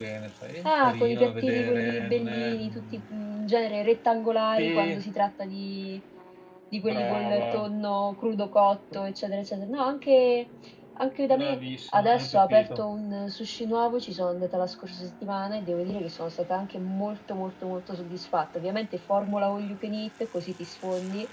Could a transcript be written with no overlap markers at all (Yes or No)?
No